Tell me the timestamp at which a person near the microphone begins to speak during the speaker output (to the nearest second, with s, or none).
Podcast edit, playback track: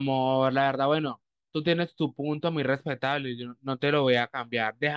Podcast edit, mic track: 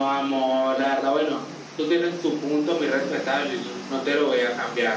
none